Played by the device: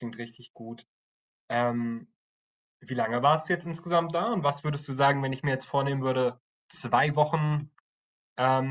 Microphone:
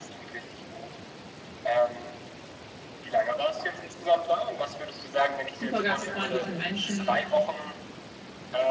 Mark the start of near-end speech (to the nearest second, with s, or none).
5 s